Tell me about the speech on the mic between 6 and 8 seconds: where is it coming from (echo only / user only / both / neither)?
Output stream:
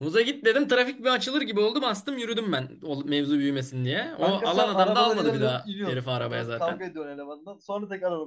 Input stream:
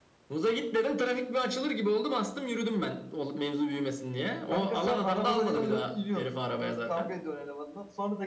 echo only